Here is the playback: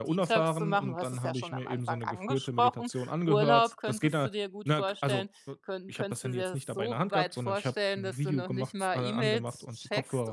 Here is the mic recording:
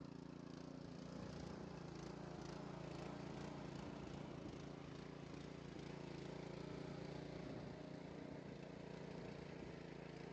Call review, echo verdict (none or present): none